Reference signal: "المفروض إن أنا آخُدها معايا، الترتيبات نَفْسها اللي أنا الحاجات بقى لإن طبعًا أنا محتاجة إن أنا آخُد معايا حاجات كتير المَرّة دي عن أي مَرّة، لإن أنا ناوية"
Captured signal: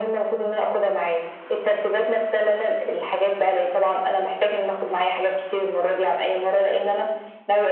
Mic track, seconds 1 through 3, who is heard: echo only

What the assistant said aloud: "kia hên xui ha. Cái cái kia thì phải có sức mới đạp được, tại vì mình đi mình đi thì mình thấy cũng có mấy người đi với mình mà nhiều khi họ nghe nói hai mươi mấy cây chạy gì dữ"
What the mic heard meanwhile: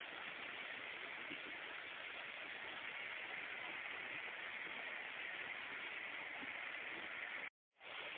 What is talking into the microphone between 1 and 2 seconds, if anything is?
neither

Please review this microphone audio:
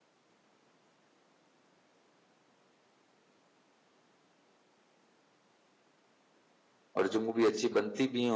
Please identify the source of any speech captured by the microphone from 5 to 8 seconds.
user only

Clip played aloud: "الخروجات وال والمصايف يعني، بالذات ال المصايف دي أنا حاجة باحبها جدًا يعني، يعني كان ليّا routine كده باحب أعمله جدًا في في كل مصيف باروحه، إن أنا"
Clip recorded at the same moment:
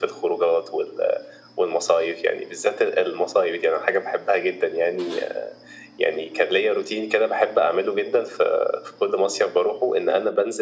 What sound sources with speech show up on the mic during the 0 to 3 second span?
echo only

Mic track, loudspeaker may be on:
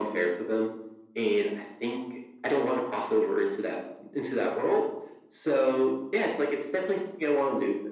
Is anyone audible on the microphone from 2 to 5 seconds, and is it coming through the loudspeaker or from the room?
echo only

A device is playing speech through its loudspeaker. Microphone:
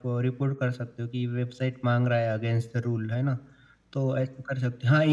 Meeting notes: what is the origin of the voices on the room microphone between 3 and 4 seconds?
echo only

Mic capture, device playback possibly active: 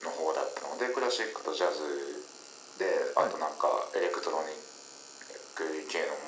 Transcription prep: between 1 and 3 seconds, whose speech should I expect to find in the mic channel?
echo only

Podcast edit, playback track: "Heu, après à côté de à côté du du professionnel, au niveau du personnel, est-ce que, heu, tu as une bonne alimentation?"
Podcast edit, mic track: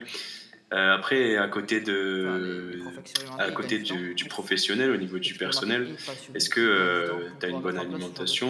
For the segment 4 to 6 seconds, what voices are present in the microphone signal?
both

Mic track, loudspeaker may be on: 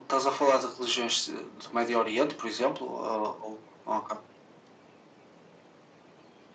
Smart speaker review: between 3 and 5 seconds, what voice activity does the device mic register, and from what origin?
echo only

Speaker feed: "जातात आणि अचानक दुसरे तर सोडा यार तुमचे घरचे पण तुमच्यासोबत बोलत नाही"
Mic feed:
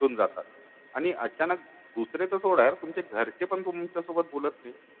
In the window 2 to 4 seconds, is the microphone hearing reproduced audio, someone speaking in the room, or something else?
echo only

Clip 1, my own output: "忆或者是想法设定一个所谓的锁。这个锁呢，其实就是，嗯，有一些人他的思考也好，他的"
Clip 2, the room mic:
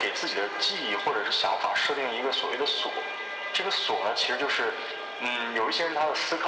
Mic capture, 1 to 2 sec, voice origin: echo only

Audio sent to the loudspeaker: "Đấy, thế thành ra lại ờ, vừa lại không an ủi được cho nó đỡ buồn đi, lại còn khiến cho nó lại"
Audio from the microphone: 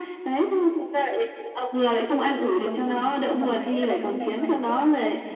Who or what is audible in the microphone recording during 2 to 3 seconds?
both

